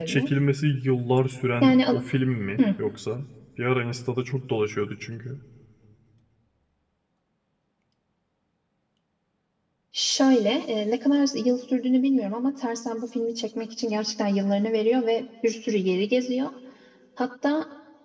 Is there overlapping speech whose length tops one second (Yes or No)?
No